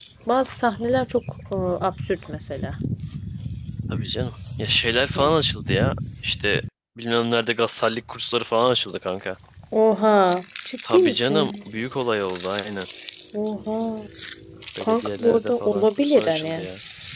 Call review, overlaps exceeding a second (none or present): present